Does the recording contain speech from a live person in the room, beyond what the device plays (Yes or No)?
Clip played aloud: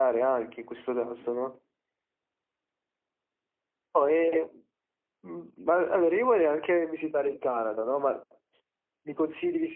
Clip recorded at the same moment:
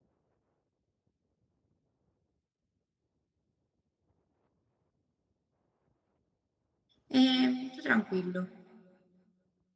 Yes